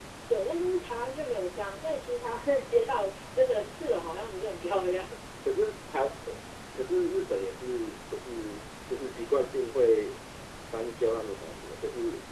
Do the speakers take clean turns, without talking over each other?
Yes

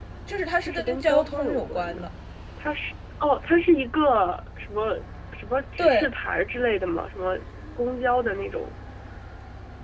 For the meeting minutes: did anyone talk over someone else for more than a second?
Yes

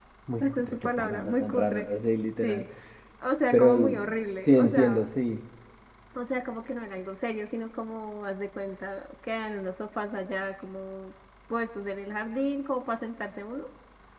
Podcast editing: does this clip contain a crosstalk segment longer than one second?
Yes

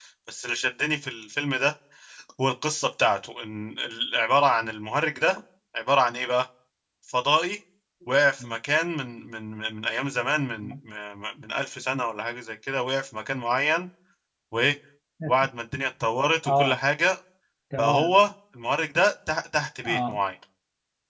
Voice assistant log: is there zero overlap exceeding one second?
Yes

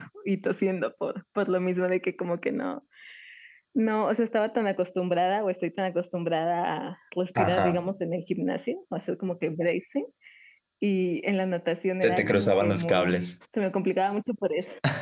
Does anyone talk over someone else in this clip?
Yes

